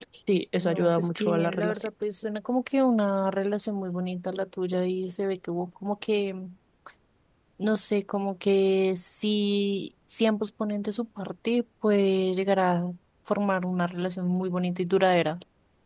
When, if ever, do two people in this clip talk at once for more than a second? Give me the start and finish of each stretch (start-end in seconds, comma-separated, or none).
0.6-1.9